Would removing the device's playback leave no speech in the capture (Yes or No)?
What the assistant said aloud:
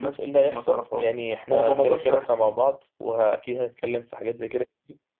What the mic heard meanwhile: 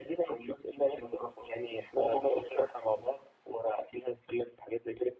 Yes